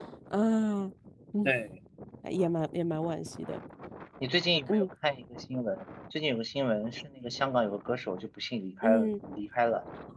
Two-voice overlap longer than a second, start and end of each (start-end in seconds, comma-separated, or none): none